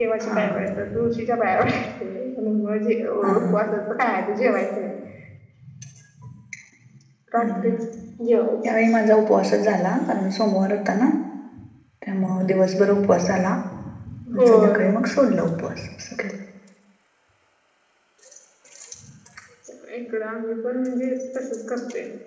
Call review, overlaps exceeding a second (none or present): none